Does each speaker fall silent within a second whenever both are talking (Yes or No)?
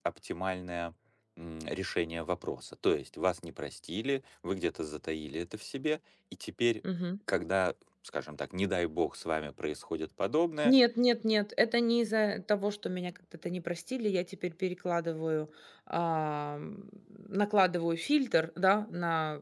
Yes